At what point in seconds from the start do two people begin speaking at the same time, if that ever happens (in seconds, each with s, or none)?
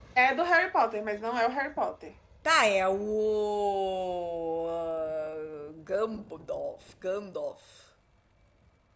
none